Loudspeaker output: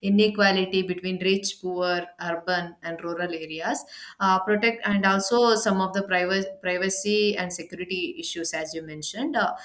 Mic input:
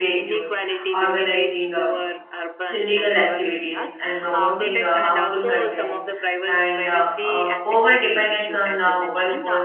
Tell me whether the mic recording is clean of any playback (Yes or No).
No